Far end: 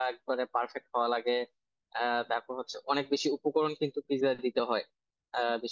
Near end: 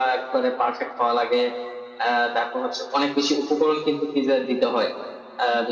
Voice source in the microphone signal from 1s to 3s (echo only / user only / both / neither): echo only